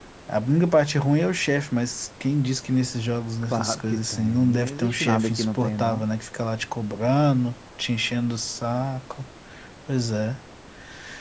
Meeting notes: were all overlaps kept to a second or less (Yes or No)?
No